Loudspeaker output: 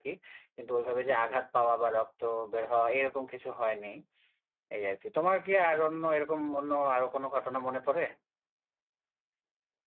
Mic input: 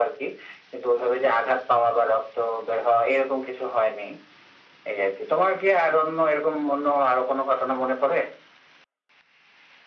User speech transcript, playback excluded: none

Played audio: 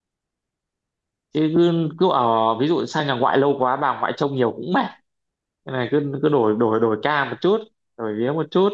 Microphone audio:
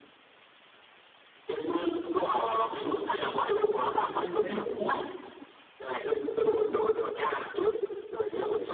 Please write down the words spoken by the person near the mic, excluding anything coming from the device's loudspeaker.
Ừm, thế thì tốt

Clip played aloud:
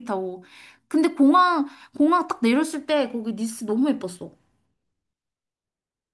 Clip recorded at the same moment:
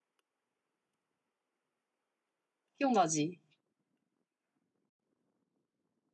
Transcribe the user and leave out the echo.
기억나지?

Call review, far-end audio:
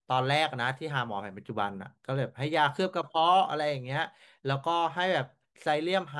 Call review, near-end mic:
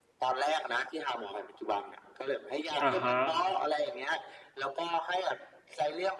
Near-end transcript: อ่าฮะ

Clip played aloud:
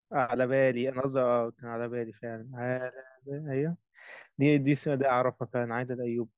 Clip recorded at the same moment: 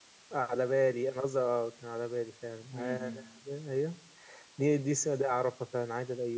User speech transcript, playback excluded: م-م.

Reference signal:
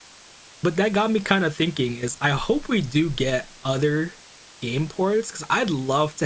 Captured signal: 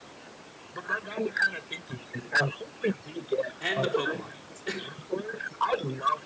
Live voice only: and the Pokemon games.

